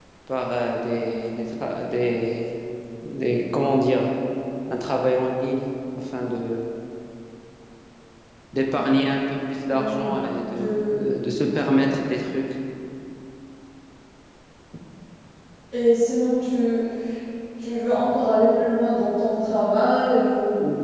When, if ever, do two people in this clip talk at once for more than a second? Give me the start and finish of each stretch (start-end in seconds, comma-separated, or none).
none